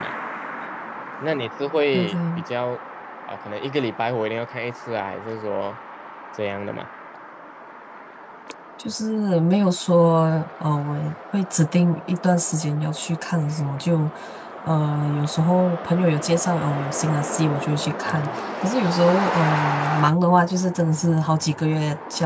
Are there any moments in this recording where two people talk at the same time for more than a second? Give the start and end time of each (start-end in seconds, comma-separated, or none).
none